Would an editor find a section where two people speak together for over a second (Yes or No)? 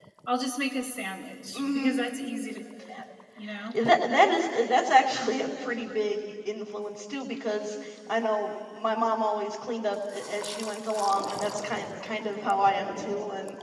No